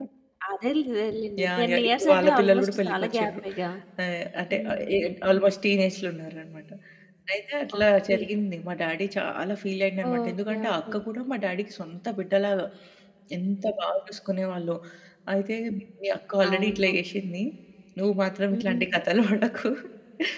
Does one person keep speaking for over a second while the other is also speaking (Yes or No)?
Yes